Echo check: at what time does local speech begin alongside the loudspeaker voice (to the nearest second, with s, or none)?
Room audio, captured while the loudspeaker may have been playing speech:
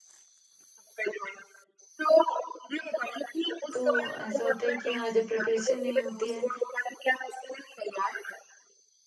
4 s